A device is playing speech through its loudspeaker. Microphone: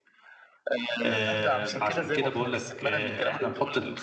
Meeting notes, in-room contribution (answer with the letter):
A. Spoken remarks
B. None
A